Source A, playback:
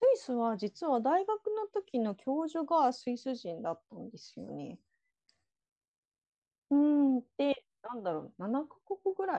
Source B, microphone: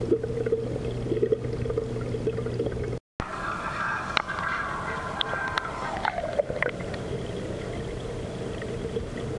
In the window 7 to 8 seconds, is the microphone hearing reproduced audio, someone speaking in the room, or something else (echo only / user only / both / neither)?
neither